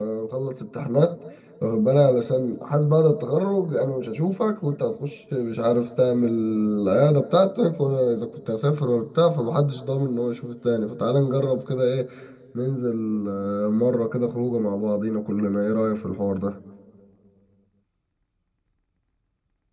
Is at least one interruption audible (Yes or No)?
No